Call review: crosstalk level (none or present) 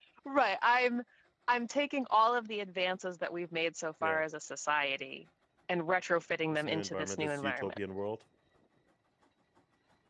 present